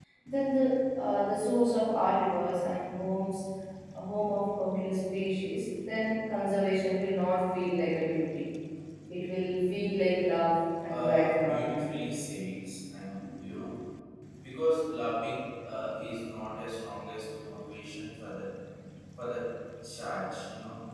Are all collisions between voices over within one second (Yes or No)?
No